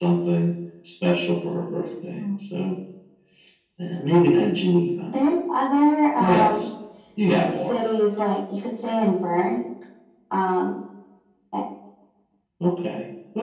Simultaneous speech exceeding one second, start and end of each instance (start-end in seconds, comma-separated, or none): none